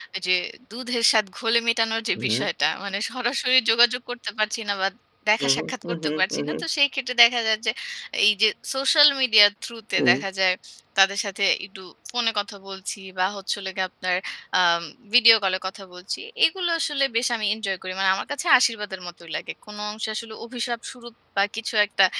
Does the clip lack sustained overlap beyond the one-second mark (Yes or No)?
No